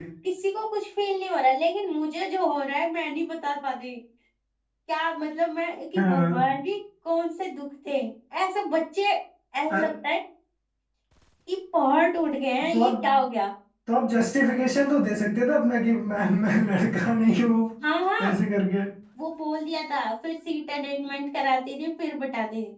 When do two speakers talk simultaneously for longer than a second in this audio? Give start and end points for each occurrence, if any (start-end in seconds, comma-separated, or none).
none